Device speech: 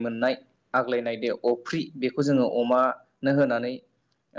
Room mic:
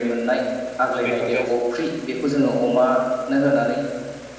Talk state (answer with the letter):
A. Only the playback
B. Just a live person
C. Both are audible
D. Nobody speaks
C